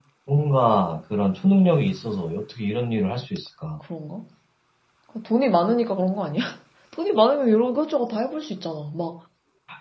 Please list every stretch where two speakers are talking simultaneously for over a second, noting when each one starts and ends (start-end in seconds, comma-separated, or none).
none